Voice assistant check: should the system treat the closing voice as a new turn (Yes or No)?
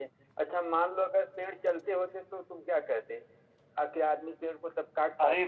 Yes